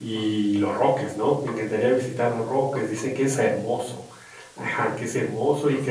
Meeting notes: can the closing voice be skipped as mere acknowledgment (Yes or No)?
Yes